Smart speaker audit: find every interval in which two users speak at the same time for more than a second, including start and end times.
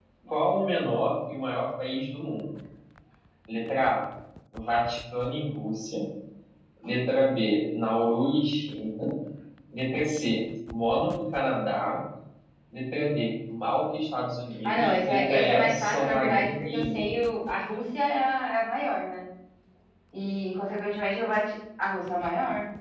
14.6-17.2

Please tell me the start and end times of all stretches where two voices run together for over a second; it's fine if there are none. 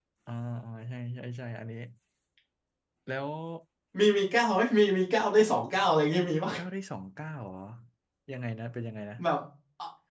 none

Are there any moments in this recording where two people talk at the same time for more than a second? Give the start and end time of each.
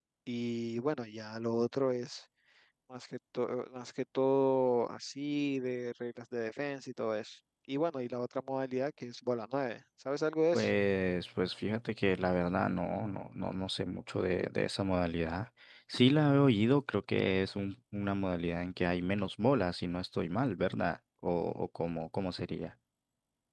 none

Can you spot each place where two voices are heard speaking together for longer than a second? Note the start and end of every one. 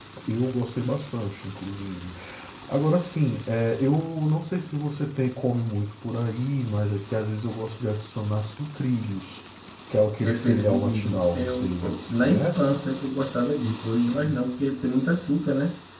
10.2-12.7

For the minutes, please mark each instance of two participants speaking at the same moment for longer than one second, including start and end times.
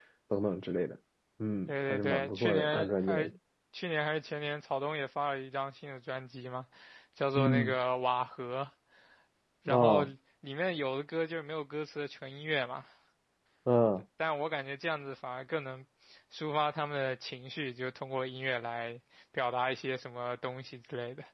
1.7-3.3

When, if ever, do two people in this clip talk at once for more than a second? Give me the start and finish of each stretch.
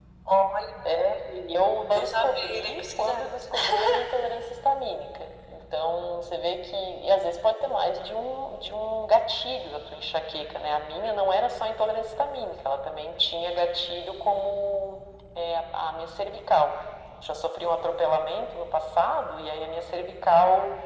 1.9-3.2

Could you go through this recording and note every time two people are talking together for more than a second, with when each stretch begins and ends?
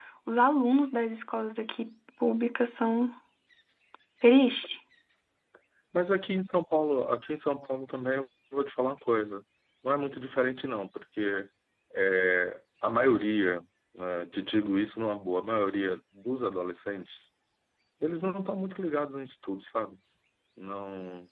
none

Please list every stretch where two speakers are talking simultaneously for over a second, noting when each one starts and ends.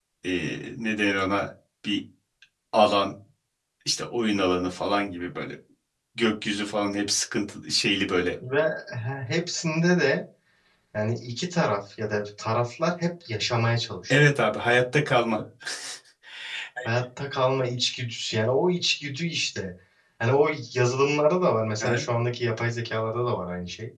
none

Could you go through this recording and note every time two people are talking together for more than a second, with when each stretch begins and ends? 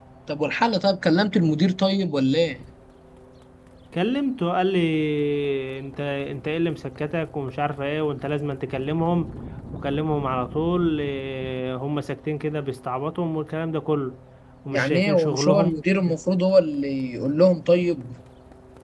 14.7-16.2

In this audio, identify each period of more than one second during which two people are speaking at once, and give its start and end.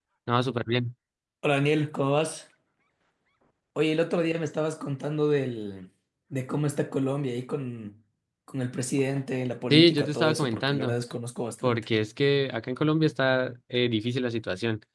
9.7-11.0

